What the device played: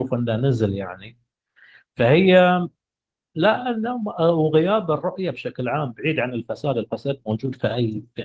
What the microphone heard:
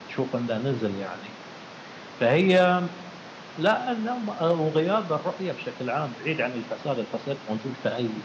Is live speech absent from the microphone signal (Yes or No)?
Yes